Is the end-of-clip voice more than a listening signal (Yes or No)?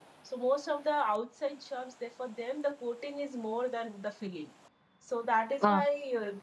No